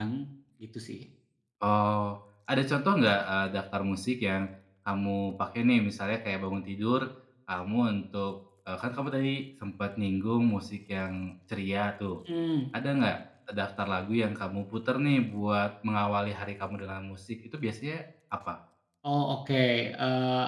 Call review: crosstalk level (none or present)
none